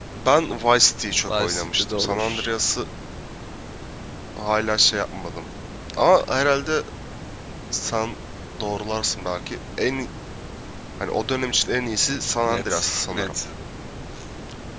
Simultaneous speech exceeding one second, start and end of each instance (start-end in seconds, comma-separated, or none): 1.3-2.5